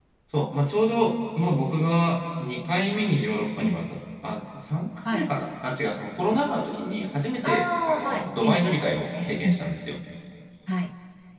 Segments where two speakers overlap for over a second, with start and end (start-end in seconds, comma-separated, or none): 7.4-9.8